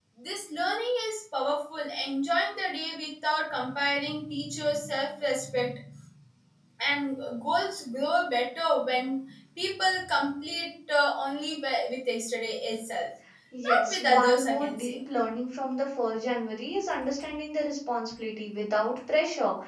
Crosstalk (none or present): present